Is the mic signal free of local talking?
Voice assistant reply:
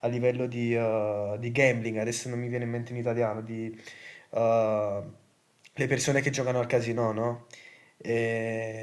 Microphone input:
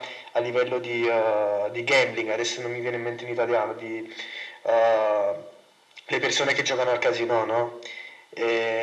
Yes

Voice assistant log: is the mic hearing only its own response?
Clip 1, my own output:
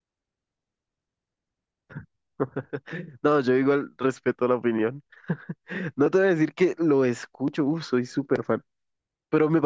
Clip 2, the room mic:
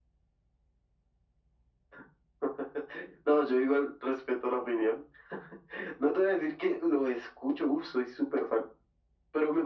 Yes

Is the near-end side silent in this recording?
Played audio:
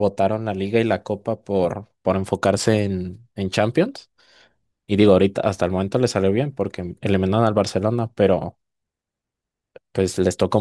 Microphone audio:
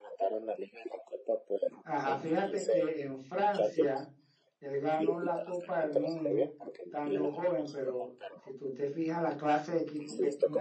No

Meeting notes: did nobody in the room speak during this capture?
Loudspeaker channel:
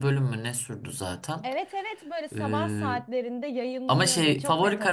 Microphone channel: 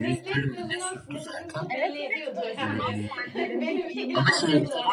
No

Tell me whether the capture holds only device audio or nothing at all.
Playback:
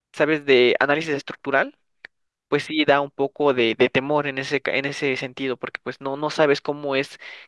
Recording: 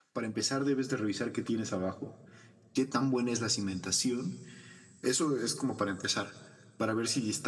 No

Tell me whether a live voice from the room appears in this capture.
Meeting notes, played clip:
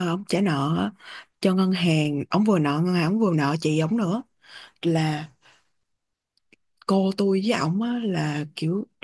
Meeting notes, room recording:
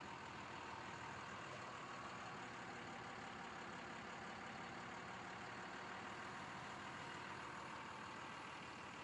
No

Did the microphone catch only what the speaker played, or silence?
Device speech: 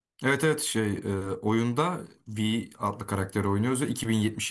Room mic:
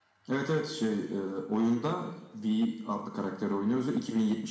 Yes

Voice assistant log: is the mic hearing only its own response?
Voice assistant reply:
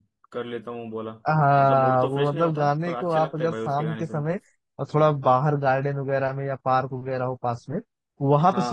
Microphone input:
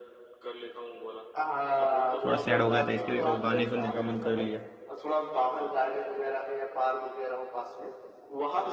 No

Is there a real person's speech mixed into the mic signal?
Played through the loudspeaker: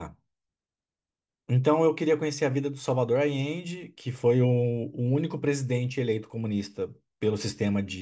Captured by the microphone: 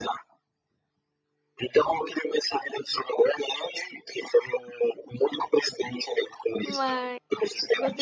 Yes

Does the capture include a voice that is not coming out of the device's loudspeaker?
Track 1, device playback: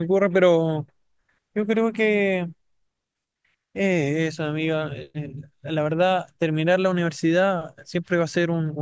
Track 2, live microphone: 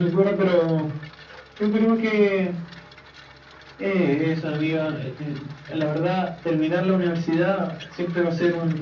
No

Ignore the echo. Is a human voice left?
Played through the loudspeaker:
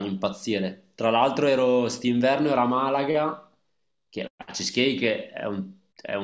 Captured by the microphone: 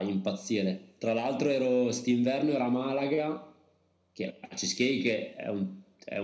No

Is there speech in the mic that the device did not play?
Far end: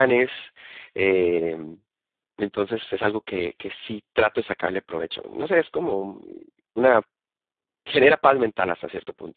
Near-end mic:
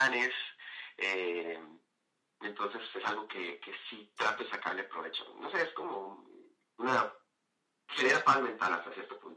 Yes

